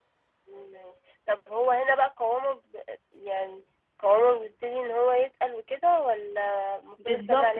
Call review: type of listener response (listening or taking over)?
taking over